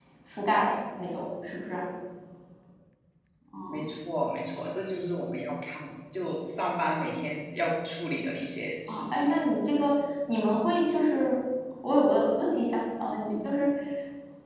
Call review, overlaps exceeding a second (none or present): none